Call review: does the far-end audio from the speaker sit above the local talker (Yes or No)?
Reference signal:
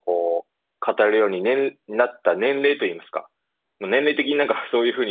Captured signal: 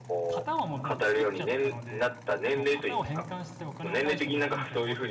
Yes